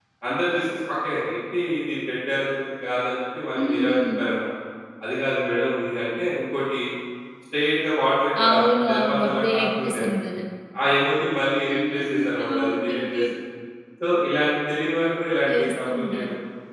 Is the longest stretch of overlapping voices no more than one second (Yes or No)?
No